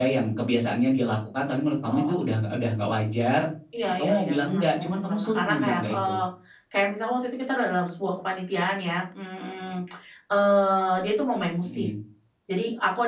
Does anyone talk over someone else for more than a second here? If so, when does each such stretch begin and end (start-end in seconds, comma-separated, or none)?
3.9-6.2